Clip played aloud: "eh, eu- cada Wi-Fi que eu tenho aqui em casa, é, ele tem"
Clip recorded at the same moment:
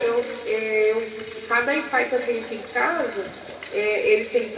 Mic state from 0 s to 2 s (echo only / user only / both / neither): echo only